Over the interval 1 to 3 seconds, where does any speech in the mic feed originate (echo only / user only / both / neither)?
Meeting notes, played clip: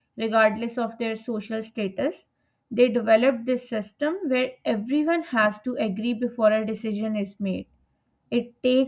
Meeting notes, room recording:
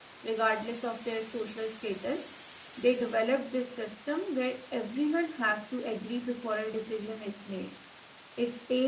echo only